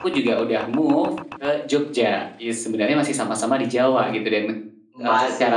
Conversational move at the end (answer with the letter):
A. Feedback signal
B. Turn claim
A